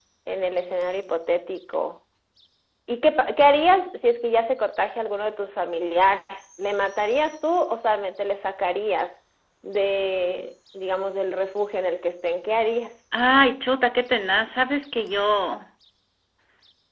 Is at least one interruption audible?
No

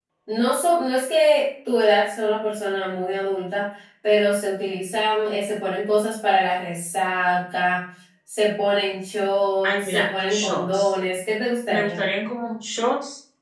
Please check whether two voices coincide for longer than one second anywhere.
Yes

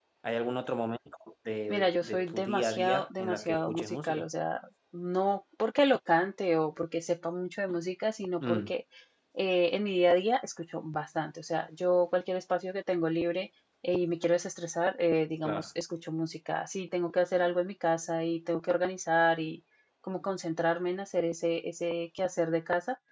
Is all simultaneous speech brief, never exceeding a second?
No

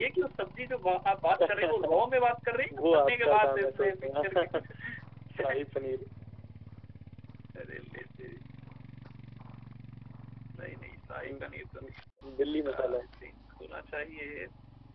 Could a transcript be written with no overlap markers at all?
No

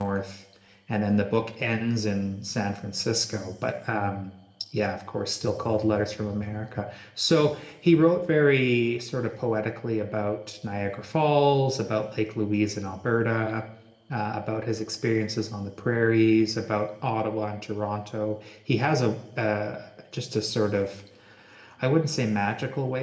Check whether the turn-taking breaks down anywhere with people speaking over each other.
No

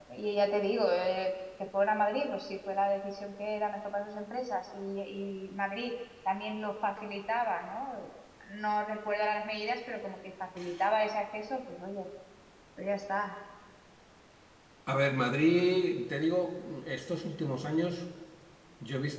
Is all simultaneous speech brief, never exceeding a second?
Yes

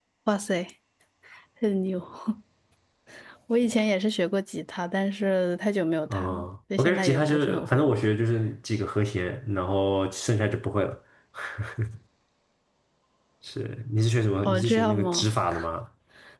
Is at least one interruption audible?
Yes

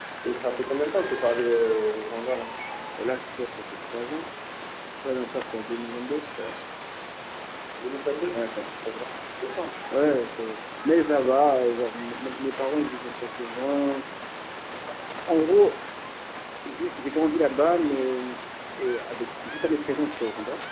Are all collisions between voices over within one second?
Yes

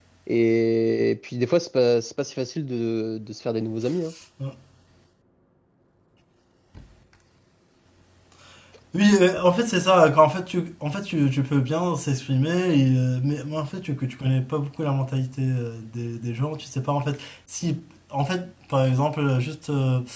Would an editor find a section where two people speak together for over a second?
No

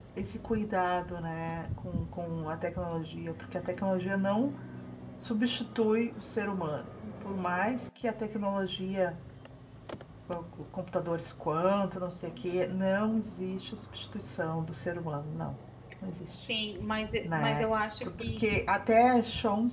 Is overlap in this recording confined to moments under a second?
Yes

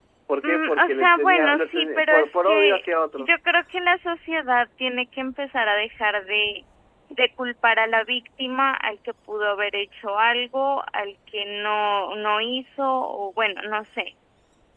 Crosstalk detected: Yes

